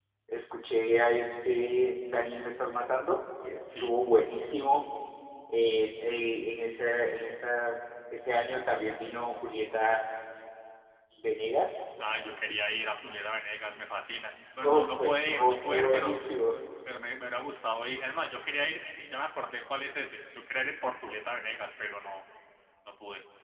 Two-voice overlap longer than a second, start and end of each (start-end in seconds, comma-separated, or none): 14.7-16.2